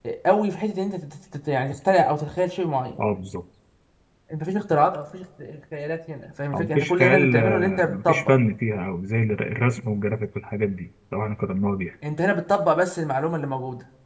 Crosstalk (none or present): present